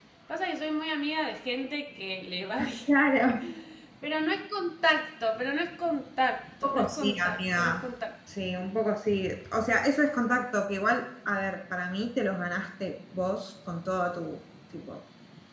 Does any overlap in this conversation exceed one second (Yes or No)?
Yes